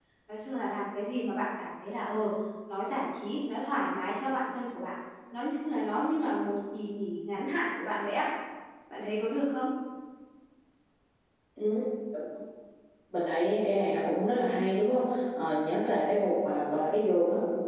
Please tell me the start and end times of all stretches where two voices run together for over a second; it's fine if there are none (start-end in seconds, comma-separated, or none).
none